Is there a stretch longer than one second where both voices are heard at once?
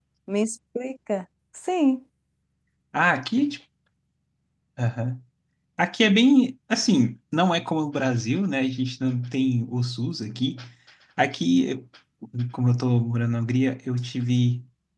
No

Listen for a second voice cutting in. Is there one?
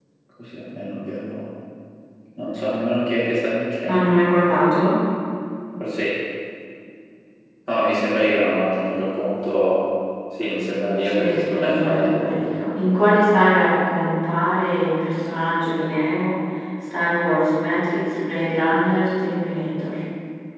Yes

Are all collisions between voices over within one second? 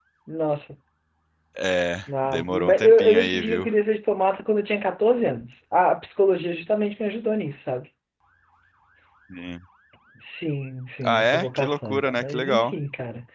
No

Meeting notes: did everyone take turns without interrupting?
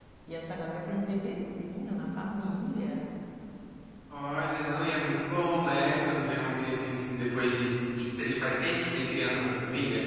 Yes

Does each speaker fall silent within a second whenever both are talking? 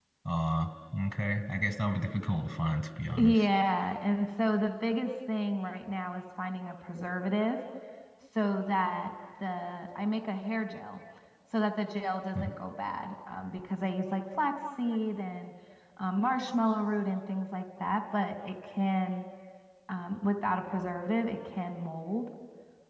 Yes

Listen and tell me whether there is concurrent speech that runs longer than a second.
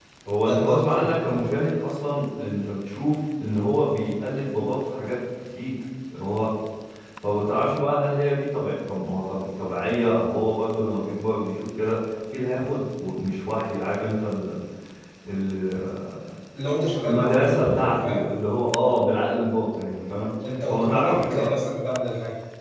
Yes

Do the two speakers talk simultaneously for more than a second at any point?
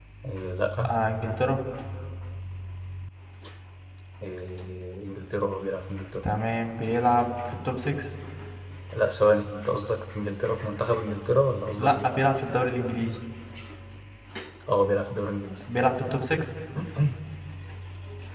No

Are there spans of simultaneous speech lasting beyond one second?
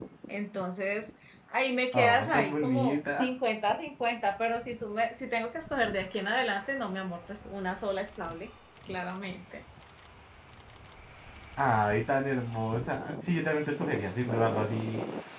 Yes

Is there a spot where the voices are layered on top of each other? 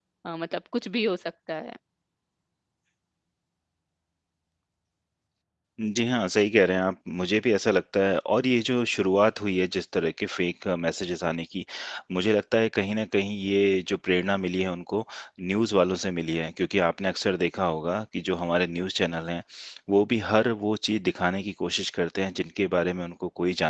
No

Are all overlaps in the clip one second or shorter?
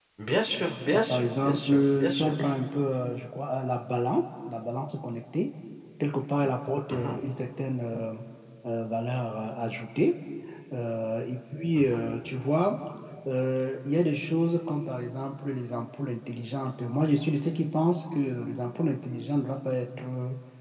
No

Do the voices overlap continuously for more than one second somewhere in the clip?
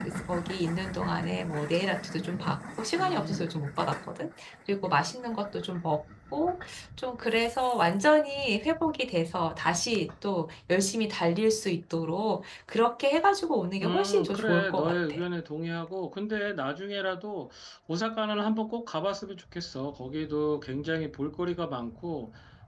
Yes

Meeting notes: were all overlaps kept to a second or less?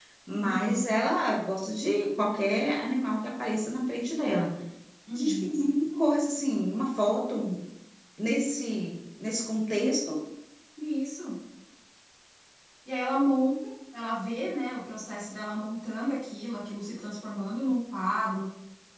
Yes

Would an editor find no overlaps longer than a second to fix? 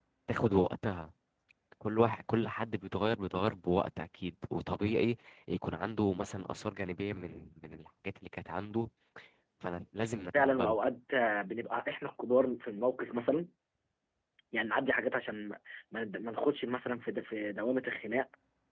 Yes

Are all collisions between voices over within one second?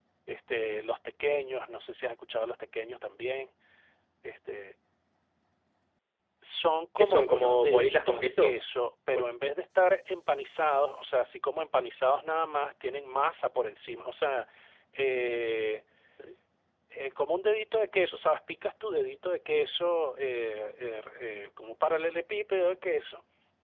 No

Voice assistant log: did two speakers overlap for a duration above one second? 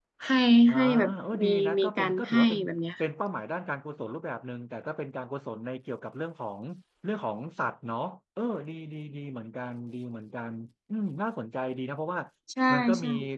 Yes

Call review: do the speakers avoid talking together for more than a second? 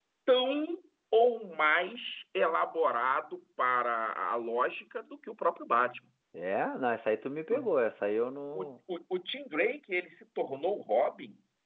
Yes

